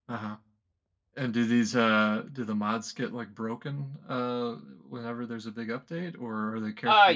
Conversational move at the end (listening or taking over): taking over